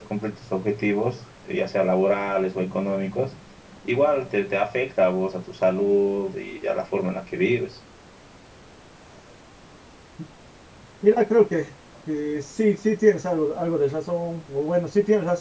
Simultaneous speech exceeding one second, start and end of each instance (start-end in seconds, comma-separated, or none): none